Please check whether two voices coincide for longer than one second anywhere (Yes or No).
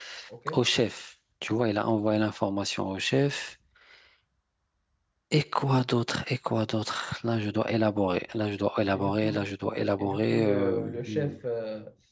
Yes